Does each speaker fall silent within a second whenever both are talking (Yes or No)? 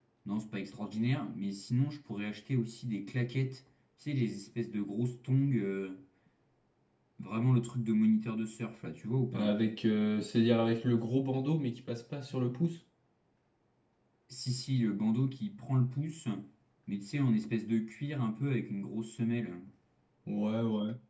Yes